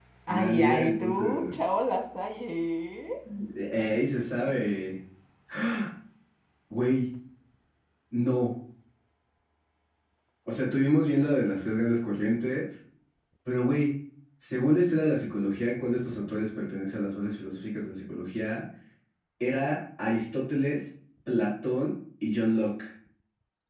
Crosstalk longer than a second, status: present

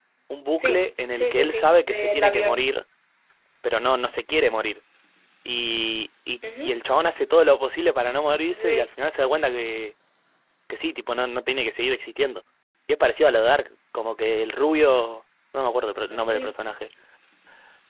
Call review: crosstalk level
present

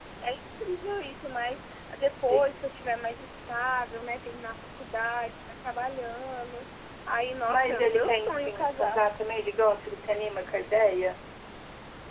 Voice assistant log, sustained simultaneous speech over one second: present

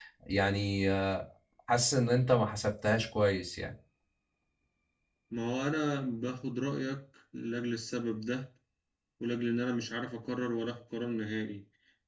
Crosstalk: none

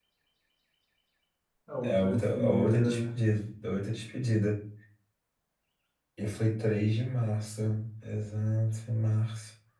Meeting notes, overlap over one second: present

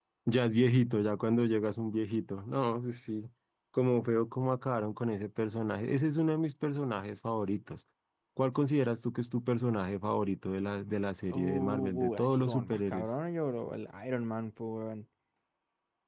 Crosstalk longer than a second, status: present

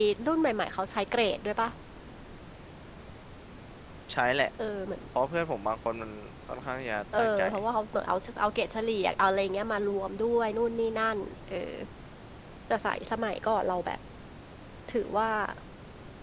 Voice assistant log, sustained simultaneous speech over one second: none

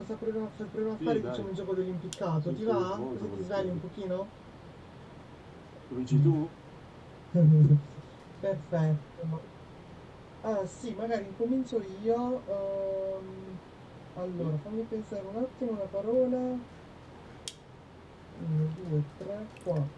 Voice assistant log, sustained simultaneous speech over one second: present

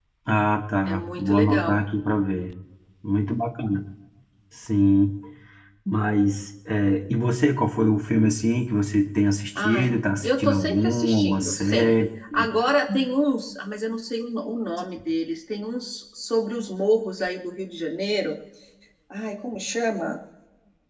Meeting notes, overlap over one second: present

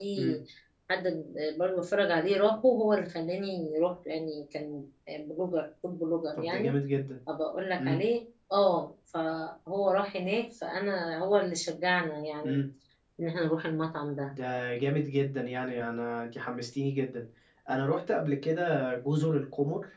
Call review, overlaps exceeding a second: none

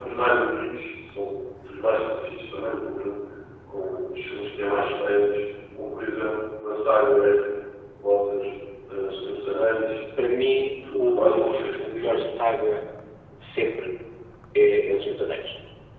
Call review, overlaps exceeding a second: present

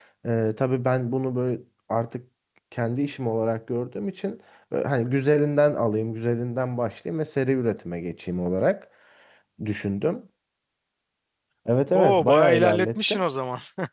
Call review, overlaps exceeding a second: present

